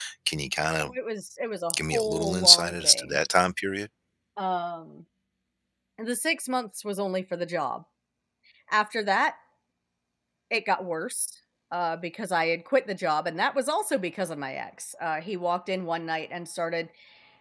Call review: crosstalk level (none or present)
present